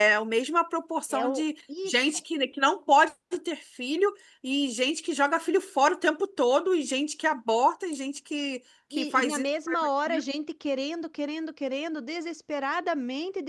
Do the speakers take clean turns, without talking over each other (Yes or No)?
No